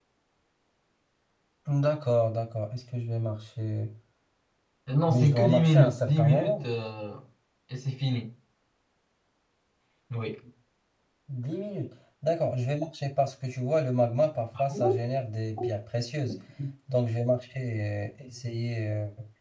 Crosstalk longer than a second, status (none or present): present